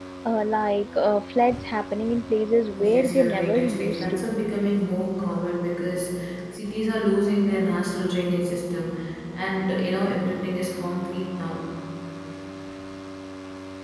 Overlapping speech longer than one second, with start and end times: 2.9-4.2

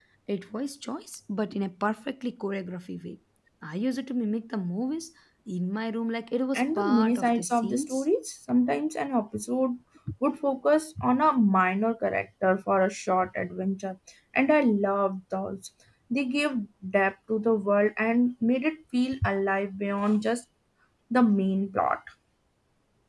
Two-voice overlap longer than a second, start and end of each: 6.5-8.1

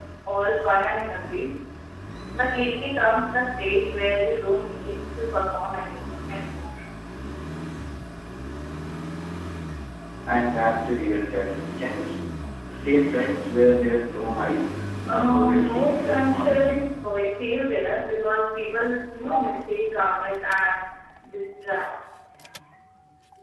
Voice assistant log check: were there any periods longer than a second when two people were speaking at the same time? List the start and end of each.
15.1-16.7

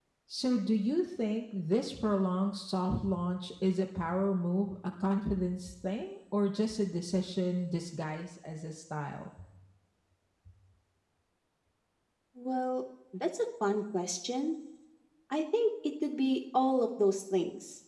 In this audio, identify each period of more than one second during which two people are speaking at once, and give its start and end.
none

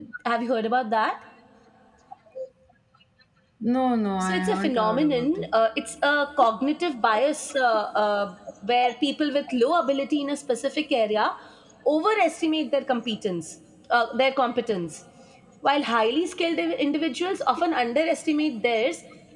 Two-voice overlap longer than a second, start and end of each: 4.2-5.5

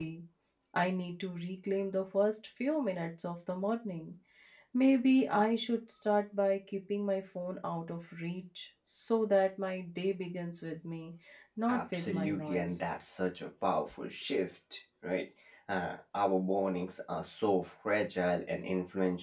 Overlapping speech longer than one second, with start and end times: 11.7-12.9

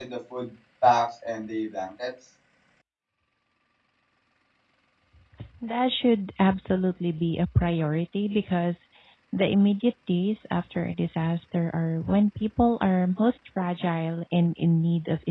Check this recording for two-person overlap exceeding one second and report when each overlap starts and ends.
none

